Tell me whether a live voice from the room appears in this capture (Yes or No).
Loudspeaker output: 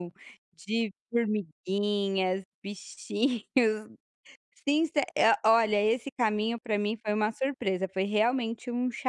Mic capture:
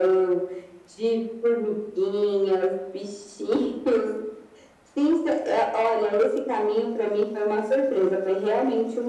No